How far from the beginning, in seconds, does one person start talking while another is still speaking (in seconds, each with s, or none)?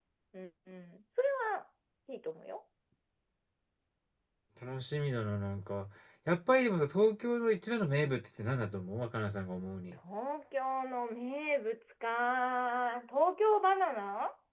none